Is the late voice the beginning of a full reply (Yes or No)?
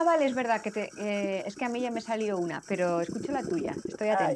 Yes